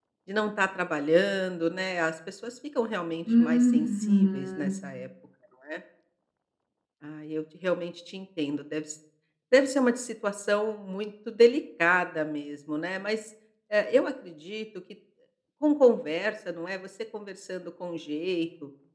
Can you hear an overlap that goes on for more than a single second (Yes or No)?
Yes